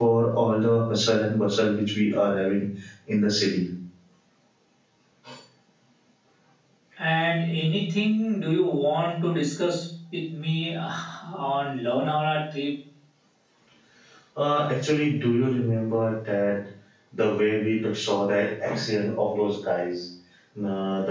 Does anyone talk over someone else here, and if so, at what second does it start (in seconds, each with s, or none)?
none